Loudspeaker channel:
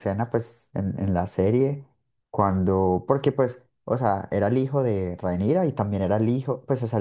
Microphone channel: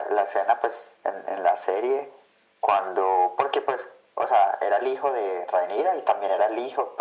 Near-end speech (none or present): none